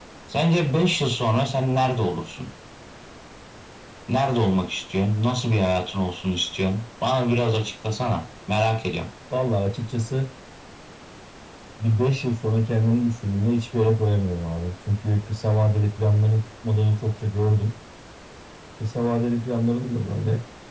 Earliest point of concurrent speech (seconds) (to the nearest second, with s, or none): none